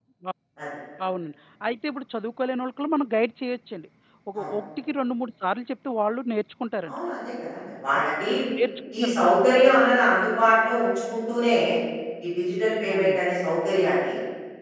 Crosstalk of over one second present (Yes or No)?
No